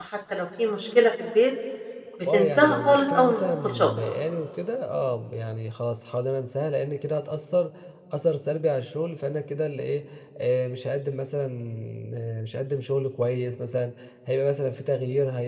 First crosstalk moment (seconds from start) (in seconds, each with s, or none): 2.3 s